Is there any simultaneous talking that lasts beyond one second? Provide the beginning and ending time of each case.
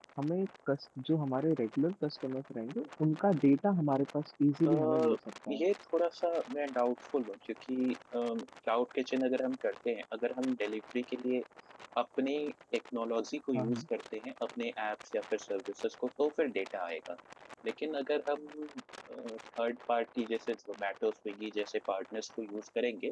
none

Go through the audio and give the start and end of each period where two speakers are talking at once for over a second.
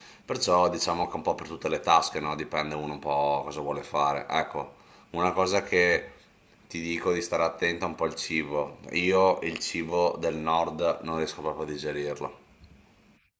none

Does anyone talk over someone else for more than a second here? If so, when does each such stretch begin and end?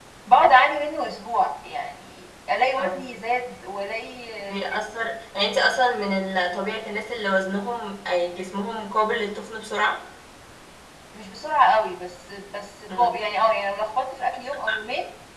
none

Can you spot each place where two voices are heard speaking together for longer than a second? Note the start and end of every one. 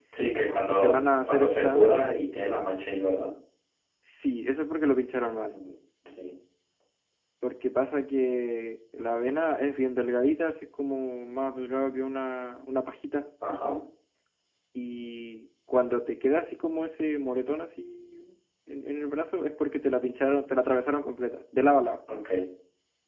0.7-2.1

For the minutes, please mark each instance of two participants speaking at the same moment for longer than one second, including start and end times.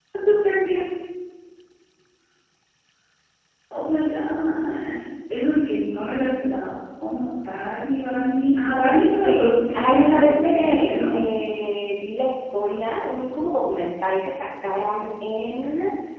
9.2-11.2

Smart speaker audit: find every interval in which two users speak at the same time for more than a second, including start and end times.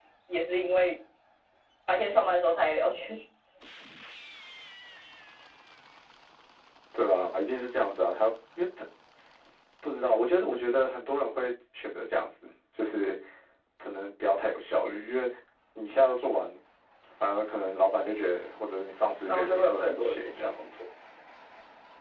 19.2-20.5

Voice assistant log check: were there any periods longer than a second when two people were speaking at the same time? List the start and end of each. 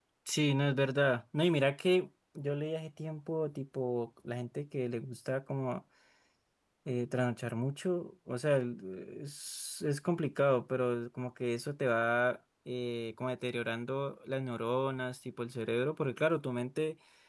none

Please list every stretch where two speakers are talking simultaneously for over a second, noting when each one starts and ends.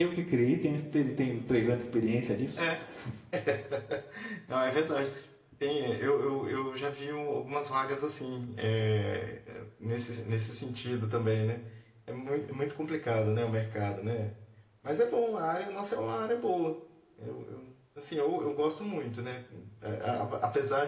none

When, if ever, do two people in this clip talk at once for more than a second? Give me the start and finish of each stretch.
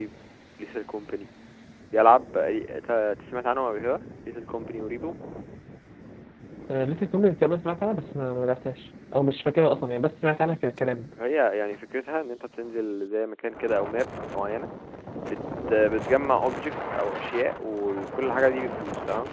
none

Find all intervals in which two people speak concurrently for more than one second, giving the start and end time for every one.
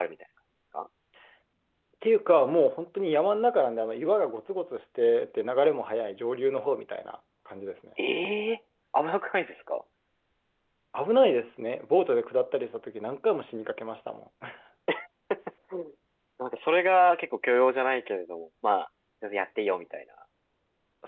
none

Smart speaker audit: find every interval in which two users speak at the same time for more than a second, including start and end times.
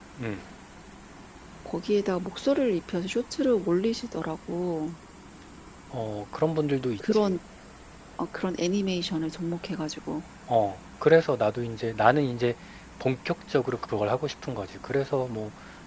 none

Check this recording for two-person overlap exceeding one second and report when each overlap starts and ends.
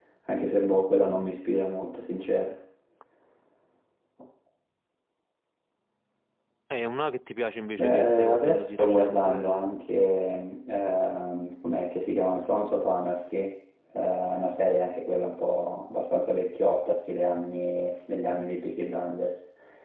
7.8-9.7

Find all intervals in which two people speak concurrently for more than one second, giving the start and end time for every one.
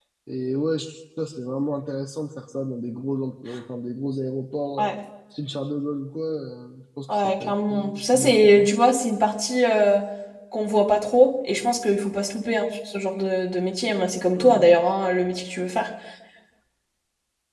7.1-8.7

